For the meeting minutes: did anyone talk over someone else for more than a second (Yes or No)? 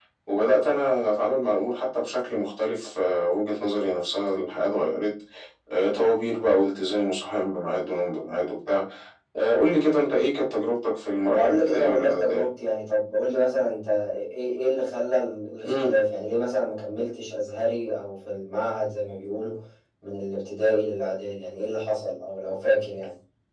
Yes